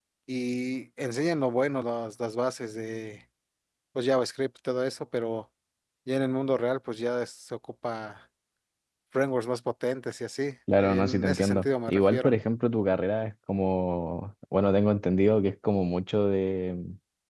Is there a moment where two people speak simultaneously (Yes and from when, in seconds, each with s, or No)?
Yes, from 10.7 s